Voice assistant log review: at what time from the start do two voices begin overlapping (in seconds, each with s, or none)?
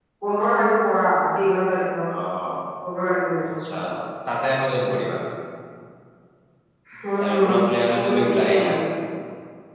7.2 s